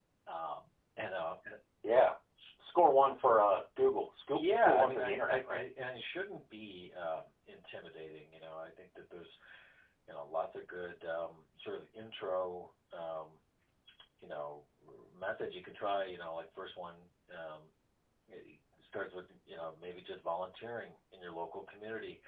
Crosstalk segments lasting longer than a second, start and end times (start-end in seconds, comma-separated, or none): 4.3-5.6